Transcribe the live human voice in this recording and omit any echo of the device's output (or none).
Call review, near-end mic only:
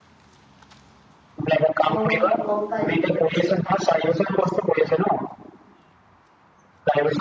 অ' গম পাইছো গম পাইছো